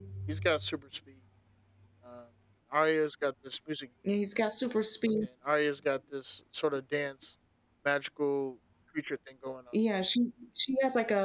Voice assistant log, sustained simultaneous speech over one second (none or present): none